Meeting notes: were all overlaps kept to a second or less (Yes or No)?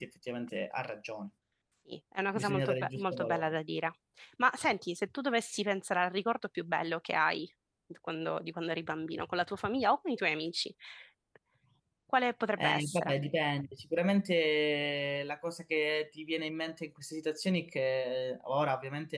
No